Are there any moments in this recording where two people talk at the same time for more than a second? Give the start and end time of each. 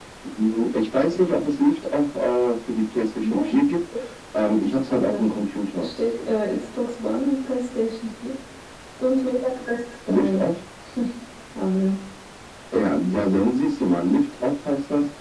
none

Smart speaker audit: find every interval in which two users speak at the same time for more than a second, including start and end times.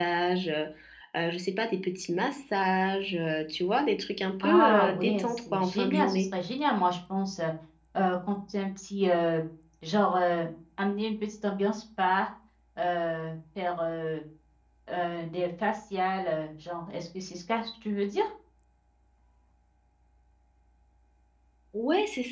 4.4-6.2

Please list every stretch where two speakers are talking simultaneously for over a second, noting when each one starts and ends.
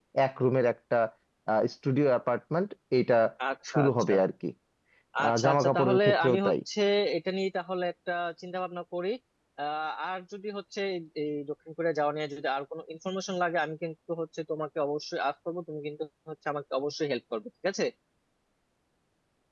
5.2-6.5

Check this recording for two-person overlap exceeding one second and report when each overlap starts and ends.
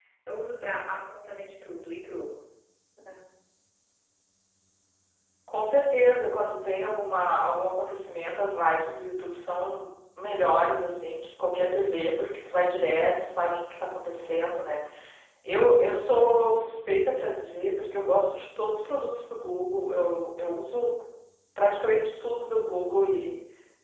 none

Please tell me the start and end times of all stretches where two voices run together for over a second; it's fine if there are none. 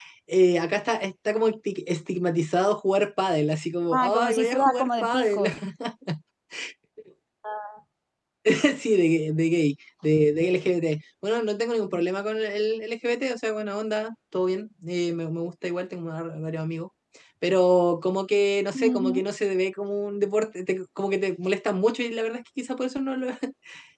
3.9-5.4

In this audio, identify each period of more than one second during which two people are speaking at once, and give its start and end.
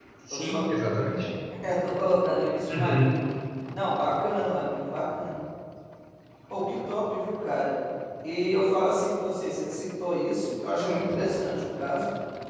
none

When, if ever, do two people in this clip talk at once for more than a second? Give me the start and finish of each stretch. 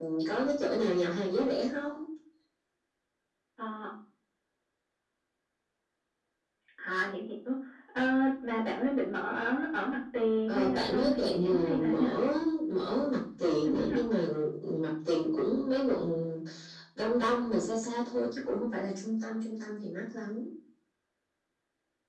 10.5-12.1

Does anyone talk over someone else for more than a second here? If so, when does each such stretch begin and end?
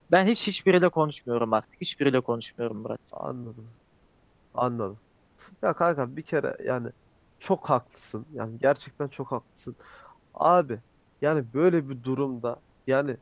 none

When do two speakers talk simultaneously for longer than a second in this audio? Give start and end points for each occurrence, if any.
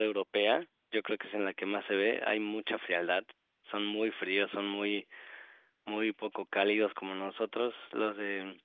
none

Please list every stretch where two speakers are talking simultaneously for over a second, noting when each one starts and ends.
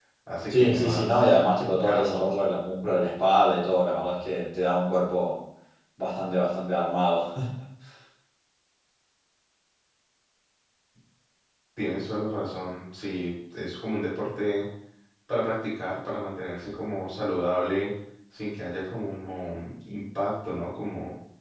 0.5-2.3

